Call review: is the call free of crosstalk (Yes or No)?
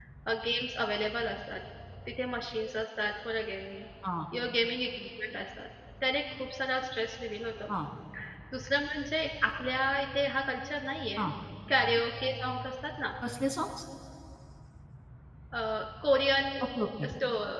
Yes